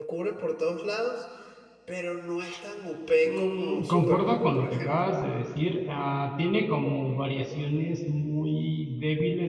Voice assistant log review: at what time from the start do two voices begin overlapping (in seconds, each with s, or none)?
3.2 s